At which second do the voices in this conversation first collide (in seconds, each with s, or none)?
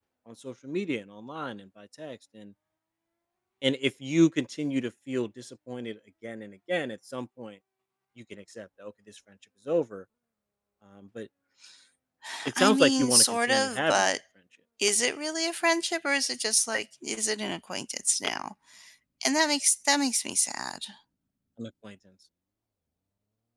12.6 s